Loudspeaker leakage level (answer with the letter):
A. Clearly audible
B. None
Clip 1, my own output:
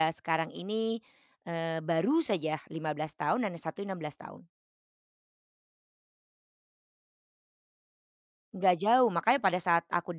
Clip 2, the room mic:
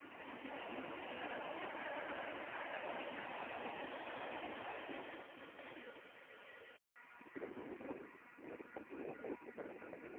B